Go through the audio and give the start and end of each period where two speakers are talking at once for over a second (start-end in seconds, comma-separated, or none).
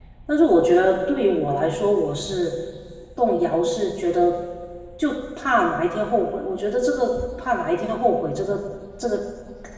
none